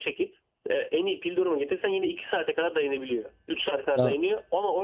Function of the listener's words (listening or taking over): listening